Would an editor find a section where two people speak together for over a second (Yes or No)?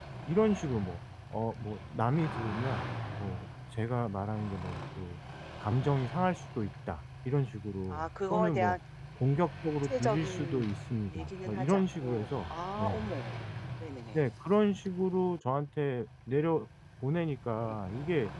Yes